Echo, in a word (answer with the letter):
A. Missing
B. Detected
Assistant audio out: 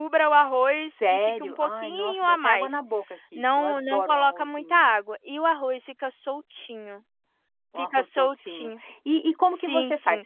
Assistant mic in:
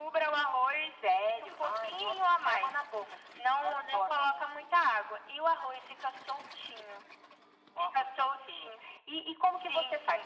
B